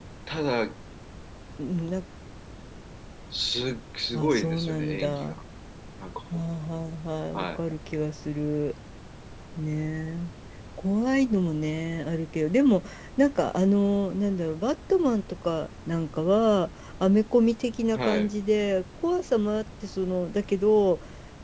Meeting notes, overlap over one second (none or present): present